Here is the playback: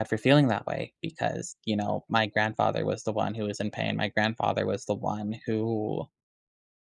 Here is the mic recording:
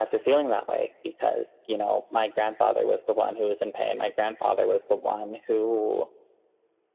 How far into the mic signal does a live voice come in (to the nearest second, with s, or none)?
none